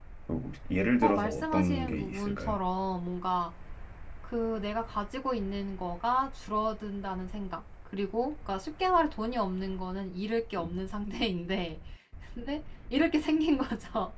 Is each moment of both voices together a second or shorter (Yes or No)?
No